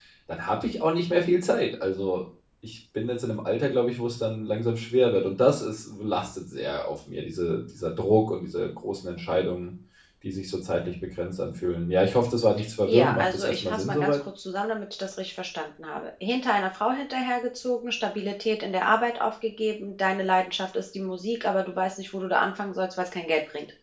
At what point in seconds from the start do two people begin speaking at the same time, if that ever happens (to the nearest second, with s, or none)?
13 s